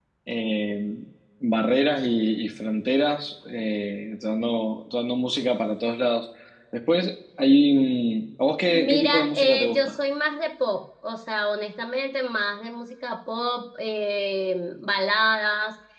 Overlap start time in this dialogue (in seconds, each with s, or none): 8.7 s